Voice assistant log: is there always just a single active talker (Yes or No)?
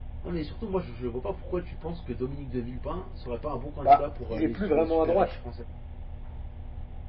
No